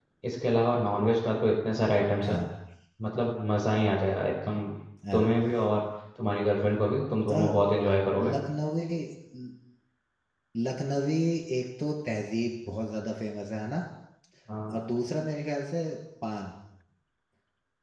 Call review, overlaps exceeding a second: none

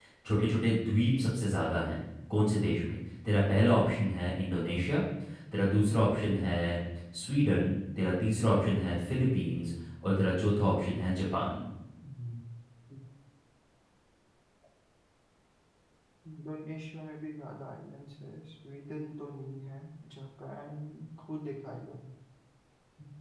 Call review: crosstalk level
none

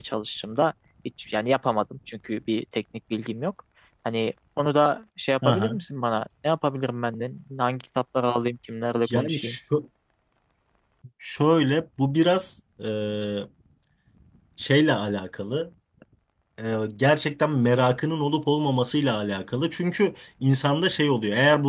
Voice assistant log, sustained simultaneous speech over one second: none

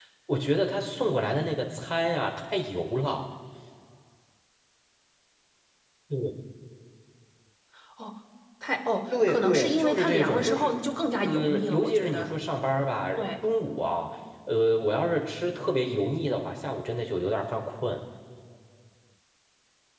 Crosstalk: present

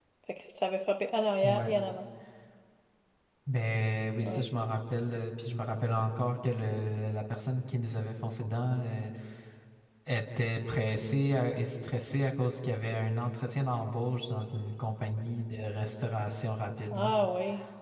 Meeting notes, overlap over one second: none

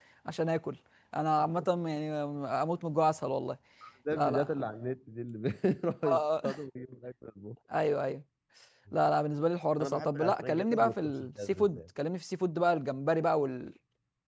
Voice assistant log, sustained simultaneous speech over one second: present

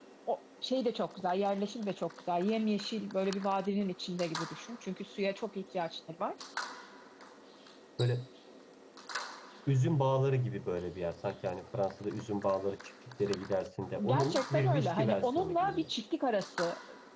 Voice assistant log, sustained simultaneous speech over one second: present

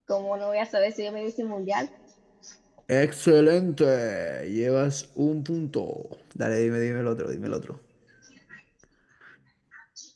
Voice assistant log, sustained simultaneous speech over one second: none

